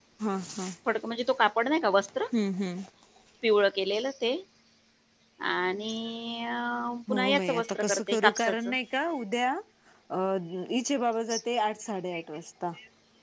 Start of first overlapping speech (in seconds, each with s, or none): 7.1 s